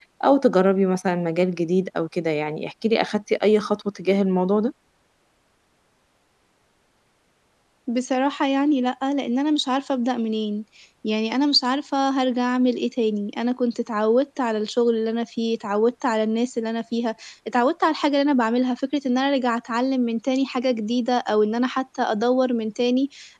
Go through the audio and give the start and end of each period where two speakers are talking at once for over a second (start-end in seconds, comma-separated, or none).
none